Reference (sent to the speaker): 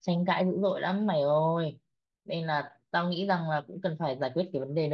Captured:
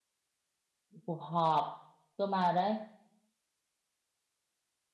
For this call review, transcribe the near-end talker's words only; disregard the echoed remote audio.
cuộc họp cơ mà đấy

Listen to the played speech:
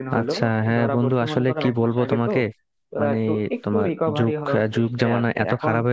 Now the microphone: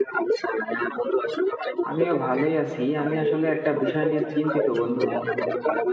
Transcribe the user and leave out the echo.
আমিও ভালোই আছি আমি আসলে একটা বিষয় নিয়ে চিন্তিত বন্ধু

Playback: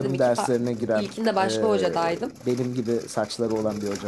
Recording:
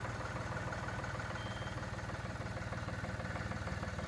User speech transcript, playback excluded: none

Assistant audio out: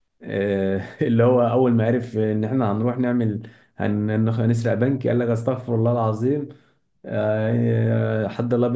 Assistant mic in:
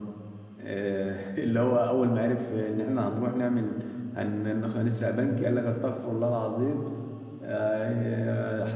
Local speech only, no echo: none

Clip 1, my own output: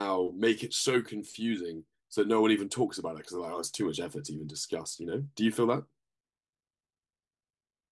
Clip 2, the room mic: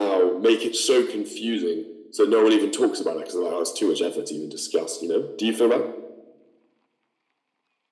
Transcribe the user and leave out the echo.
none

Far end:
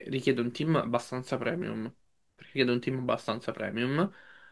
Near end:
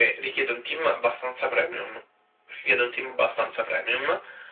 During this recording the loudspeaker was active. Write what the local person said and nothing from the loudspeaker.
none

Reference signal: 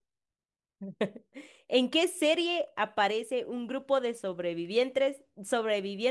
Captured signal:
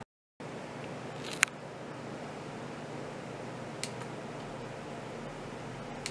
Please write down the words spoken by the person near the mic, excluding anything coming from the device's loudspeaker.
none

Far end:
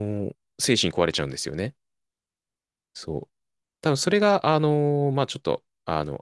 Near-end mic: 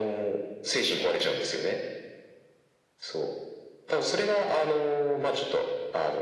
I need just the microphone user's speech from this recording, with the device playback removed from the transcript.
none

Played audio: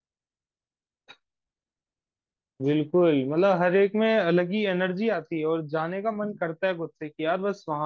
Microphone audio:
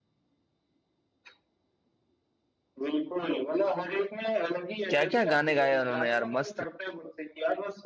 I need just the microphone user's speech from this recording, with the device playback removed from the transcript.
क्या क्या गाने गाए उन्होंने यार मस्त

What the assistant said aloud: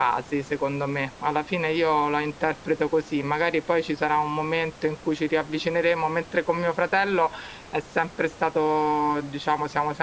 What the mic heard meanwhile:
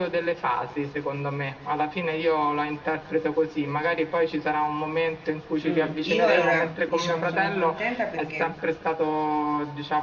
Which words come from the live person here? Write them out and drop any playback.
Mm, io allora, diciamo, sono contenta perché

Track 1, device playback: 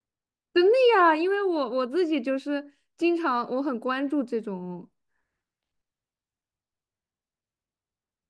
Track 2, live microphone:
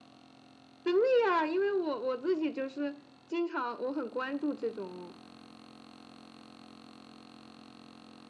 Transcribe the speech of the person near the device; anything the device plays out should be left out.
none

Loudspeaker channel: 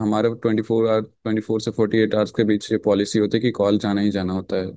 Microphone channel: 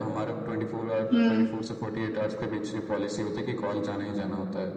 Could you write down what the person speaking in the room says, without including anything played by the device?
हम्म

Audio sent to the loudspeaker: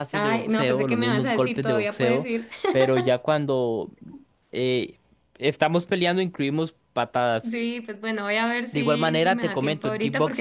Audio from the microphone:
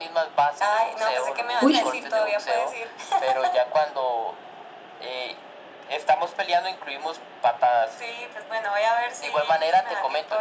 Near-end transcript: Uy,

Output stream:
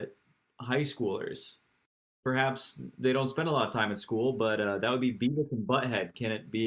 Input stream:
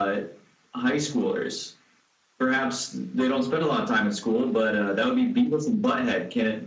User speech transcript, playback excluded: none

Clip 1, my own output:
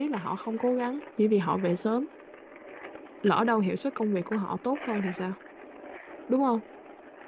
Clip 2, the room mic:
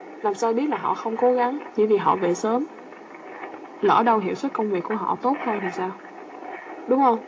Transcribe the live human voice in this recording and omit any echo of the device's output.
none

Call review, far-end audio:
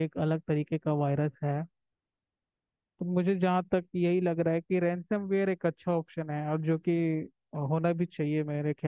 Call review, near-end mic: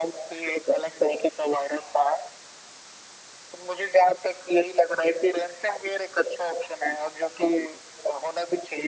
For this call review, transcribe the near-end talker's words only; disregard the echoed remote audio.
none

